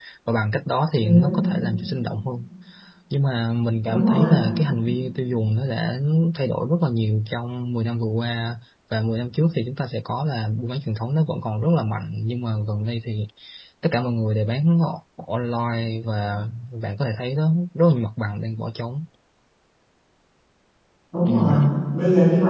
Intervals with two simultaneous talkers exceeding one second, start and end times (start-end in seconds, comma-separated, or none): none